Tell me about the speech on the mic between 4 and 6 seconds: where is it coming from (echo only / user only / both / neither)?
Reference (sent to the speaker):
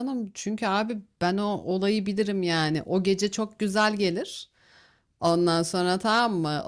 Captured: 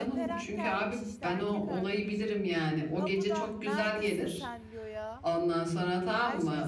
both